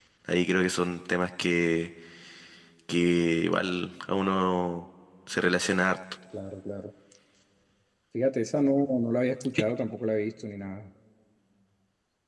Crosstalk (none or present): none